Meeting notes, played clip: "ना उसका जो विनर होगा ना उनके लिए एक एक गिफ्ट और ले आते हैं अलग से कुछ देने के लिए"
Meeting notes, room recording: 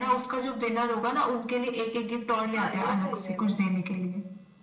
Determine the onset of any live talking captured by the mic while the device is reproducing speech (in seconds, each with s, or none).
2.5 s